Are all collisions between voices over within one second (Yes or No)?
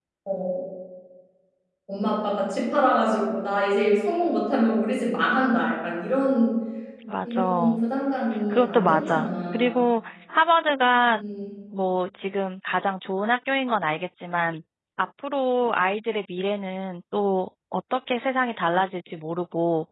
No